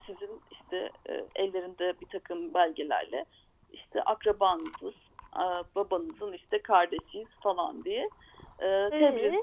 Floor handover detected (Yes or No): No